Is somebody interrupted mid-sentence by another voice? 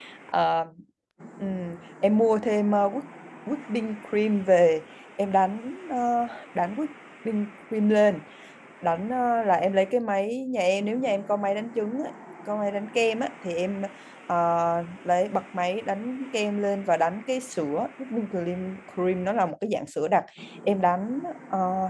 No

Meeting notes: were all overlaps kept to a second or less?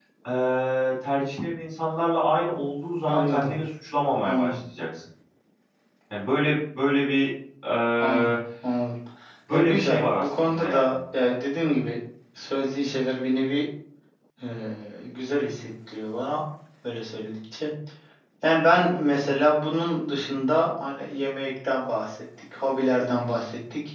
No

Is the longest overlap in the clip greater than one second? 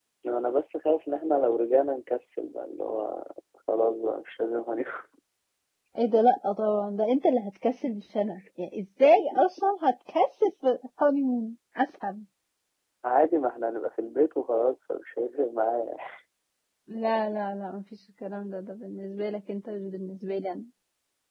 No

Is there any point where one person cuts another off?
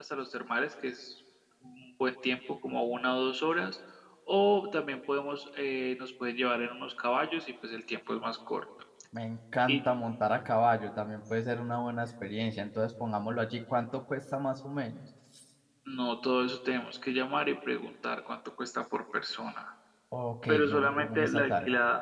Yes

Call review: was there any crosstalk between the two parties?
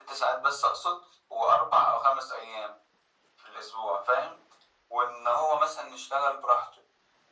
No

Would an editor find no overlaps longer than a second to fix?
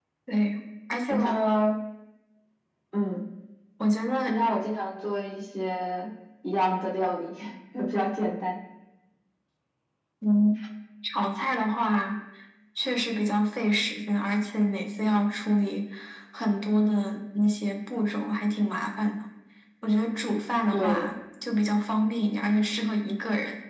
Yes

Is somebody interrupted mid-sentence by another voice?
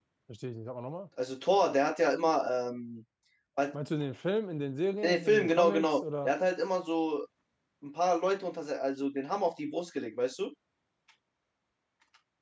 Yes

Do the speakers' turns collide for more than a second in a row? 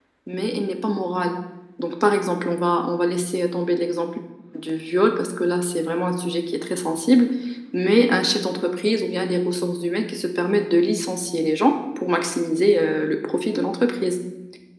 No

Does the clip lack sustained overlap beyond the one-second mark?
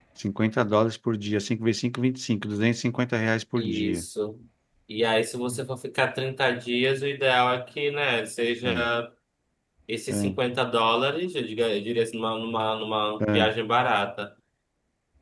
Yes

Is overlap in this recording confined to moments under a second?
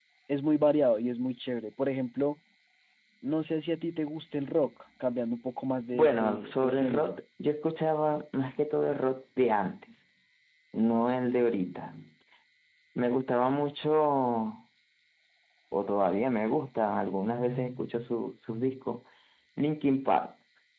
No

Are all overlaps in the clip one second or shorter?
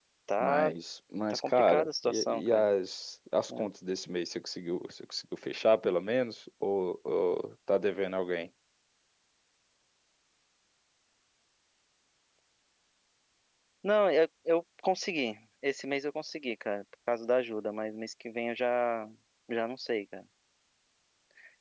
No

